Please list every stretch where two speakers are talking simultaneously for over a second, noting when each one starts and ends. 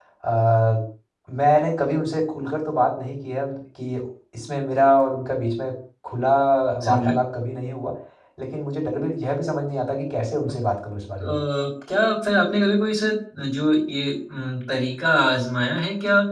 none

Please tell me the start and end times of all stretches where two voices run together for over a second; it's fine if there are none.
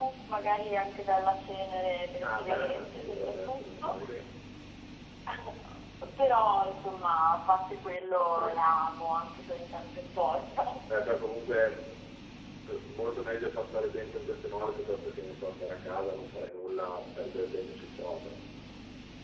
2.2-4.0

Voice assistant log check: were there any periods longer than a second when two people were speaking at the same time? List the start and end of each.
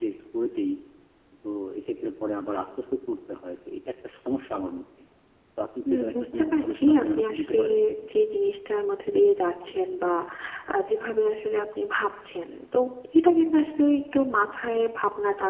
5.9-7.6

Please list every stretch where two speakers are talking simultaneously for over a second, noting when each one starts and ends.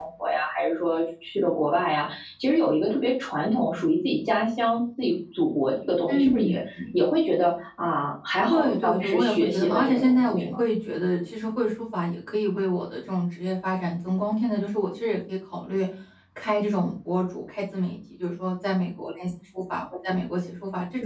8.5-10.6

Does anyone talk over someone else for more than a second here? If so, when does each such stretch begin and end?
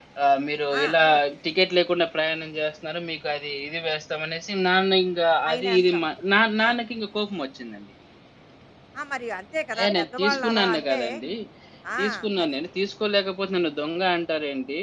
9.8-11.0

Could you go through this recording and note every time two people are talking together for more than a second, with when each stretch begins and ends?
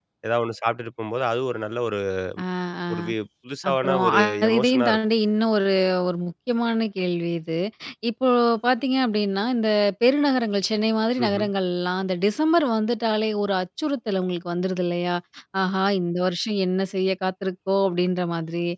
3.7-5.0

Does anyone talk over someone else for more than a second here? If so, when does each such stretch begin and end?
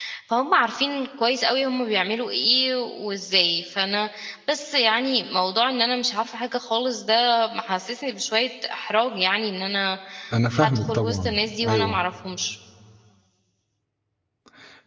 10.6-12.0

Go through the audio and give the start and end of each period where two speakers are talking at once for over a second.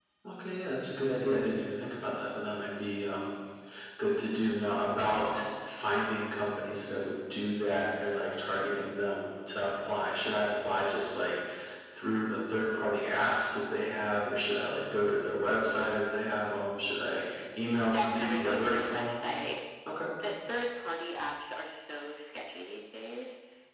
17.9-19.2

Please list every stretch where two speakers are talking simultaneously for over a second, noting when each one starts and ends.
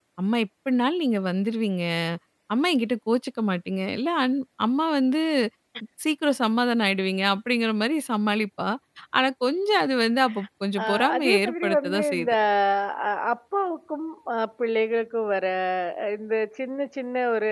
10.8-12.3

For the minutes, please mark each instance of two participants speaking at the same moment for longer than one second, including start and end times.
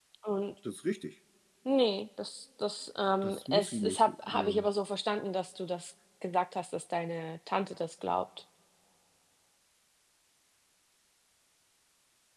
3.2-4.7

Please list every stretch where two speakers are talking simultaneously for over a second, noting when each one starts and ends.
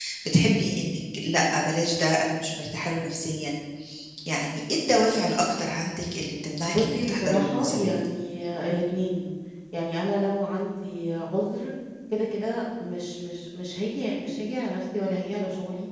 6.7-7.9

